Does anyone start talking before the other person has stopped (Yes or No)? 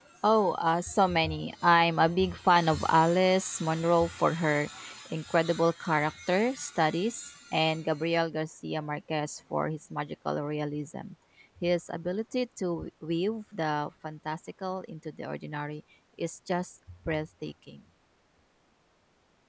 No